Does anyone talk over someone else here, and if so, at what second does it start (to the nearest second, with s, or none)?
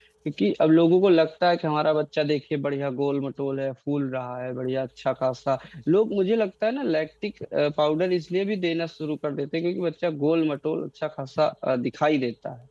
none